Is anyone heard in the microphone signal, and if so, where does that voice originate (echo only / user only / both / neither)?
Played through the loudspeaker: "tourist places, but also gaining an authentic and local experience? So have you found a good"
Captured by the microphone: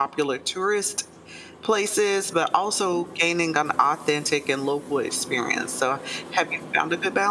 echo only